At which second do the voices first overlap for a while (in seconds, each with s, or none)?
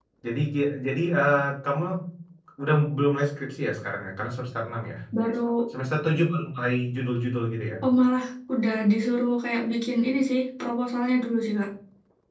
none